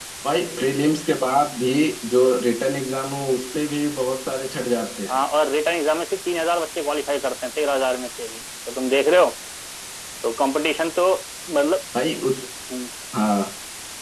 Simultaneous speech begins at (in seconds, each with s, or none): none